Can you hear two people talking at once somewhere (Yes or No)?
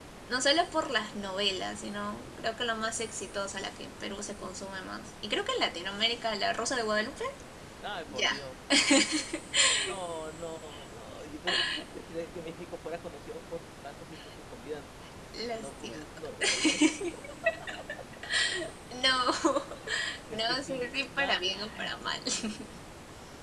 Yes